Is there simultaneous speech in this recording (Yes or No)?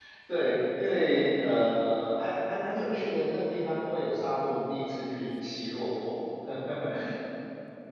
No